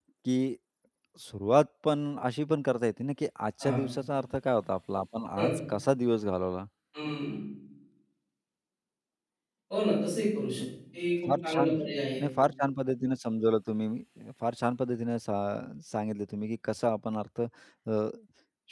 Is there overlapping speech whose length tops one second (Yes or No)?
No